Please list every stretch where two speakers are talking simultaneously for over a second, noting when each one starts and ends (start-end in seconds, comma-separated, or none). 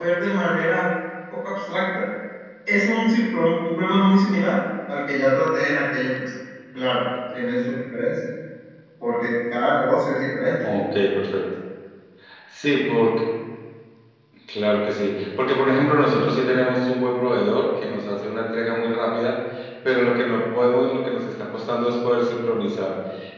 none